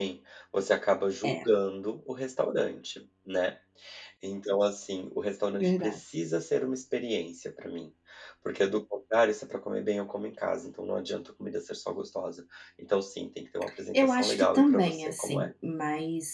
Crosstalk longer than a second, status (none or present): present